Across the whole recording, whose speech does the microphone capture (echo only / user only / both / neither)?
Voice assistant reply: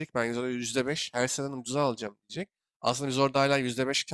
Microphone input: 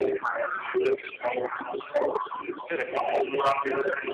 both